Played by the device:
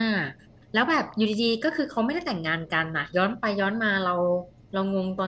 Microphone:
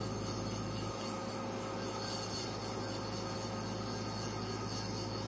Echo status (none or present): none